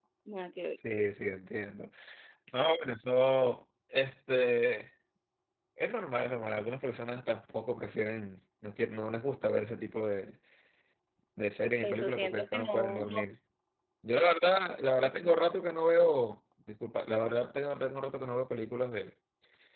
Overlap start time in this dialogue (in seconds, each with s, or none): 11.8 s